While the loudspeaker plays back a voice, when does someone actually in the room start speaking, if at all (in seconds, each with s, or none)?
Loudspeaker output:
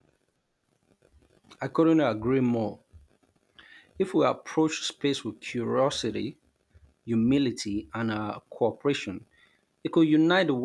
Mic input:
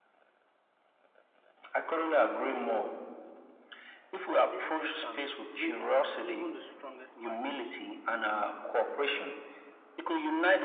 4.5 s